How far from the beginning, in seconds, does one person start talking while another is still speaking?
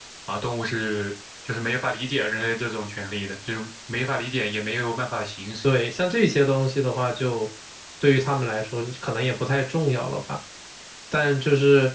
none

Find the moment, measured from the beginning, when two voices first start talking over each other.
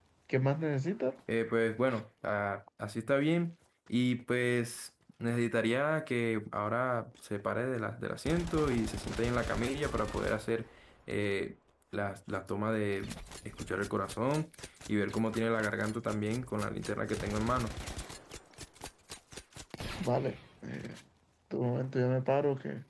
none

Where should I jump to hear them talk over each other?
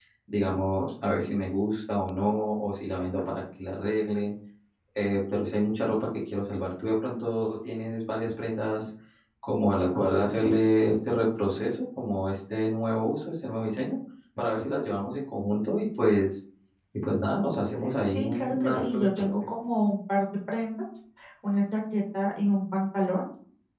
18.0 s

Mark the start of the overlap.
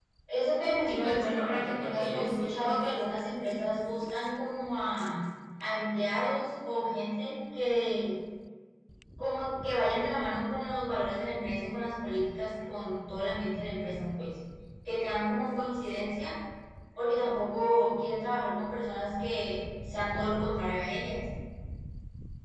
0.8 s

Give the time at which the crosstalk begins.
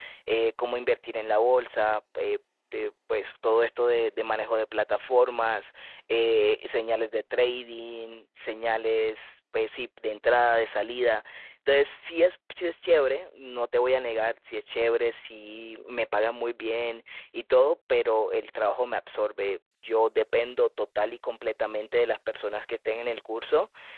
none

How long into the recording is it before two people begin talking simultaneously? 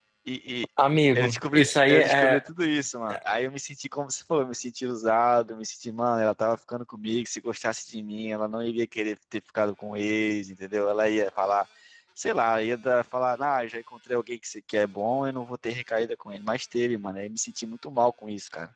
1.1 s

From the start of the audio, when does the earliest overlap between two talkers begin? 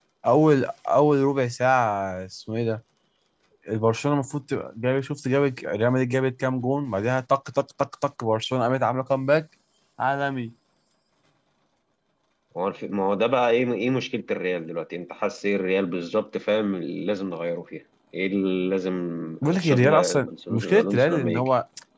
19.6 s

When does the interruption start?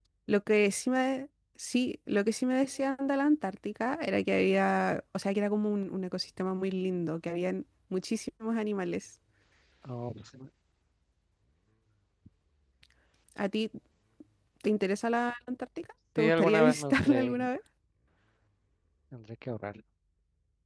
16.2 s

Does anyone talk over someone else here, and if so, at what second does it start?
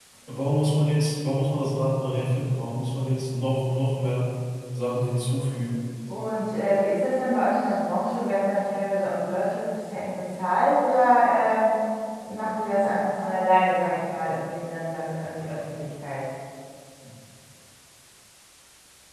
none

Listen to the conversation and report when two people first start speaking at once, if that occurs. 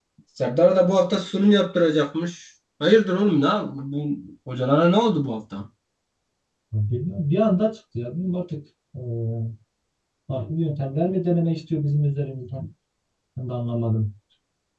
none

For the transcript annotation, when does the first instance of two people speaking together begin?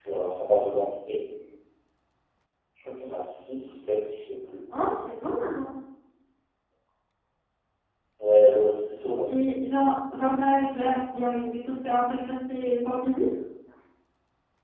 none

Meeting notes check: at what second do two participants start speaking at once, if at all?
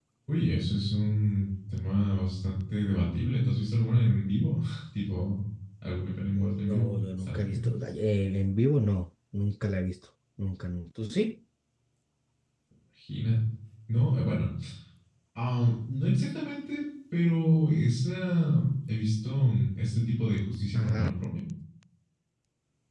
6.3 s

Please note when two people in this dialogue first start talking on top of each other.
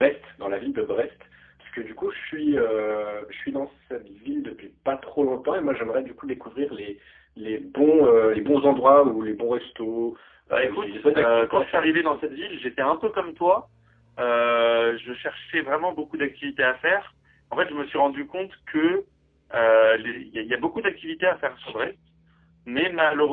10.5 s

